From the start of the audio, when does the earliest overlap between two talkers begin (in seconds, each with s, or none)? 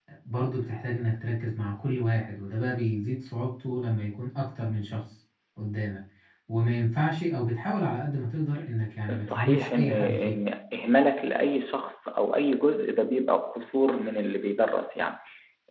9.1 s